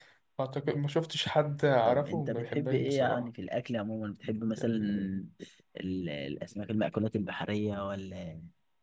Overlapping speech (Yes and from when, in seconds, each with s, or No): Yes, from 1.8 s